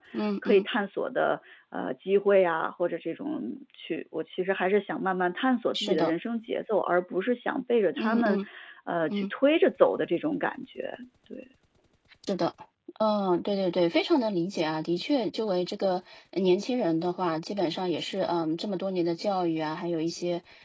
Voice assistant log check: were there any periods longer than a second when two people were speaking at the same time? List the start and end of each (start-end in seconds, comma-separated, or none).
none